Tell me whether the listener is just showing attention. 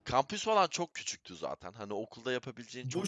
No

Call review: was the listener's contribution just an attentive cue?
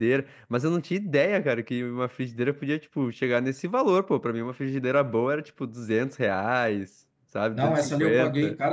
No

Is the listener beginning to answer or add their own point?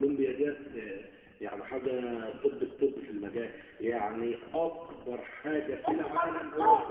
Yes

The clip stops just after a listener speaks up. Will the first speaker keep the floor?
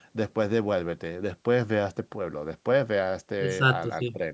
No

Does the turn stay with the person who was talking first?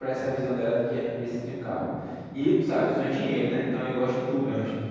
Yes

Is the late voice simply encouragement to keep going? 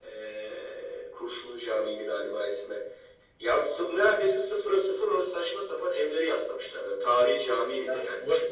No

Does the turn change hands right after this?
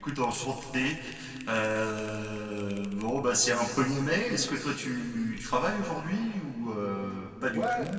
Yes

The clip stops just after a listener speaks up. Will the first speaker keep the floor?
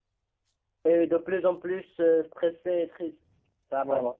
Yes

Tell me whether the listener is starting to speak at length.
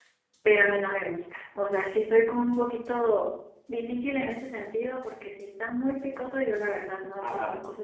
Yes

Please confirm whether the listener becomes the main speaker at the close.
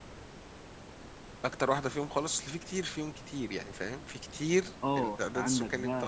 Yes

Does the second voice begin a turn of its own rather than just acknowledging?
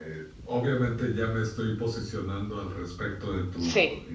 No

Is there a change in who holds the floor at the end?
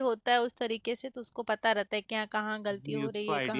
Yes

